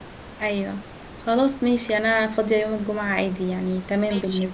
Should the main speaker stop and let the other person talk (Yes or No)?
Yes